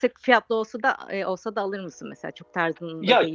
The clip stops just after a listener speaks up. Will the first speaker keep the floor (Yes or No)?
No